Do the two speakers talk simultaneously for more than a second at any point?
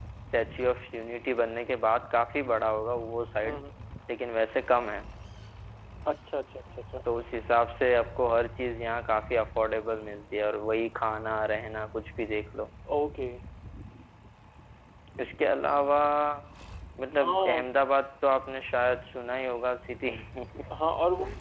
No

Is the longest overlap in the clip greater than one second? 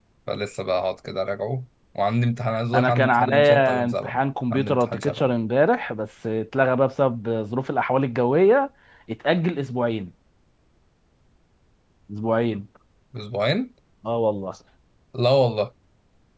Yes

